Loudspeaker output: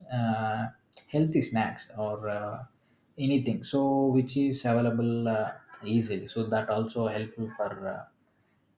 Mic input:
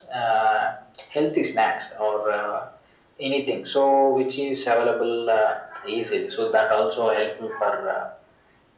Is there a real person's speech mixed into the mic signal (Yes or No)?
No